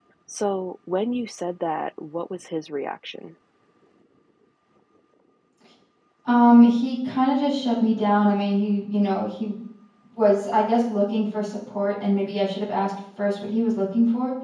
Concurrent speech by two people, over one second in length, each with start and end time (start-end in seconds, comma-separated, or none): none